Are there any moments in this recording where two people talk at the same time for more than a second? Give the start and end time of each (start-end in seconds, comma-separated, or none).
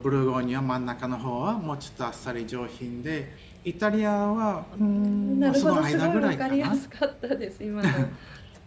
4.7-6.8